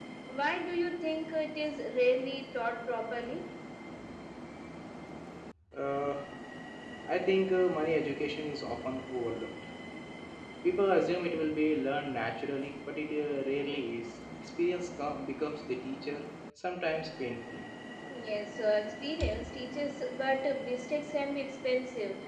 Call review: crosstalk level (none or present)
none